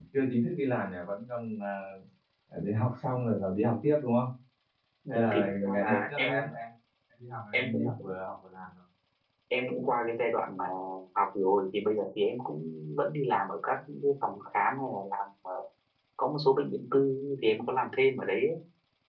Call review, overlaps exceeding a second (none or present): present